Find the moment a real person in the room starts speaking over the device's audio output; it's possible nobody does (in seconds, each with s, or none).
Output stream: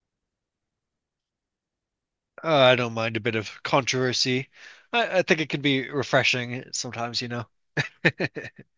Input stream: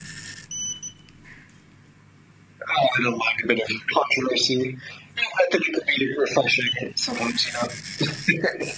none